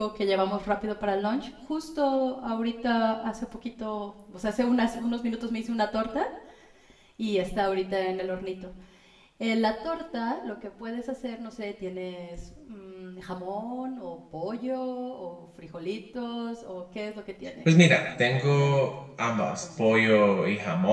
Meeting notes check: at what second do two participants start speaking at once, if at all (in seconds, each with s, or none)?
17.6 s